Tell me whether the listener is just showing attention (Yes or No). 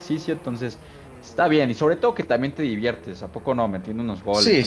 No